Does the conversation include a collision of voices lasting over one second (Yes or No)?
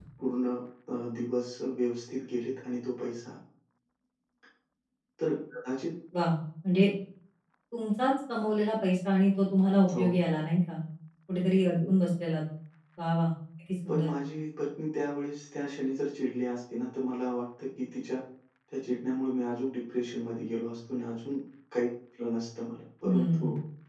No